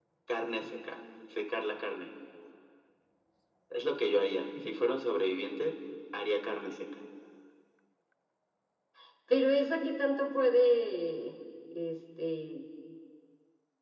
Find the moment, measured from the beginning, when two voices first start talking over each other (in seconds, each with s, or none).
none